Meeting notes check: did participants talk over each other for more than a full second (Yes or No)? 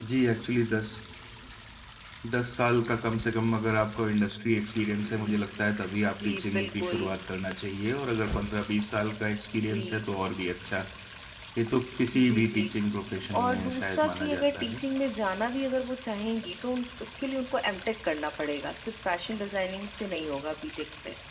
Yes